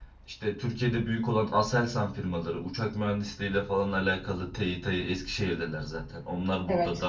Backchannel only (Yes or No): Yes